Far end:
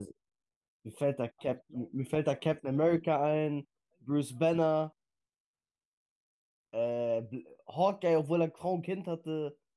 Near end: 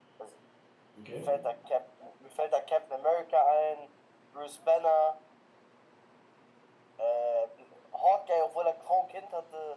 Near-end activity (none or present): present